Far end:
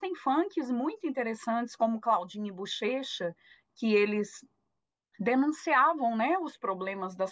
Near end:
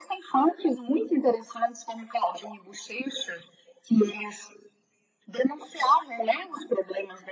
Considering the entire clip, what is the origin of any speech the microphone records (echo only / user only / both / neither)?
echo only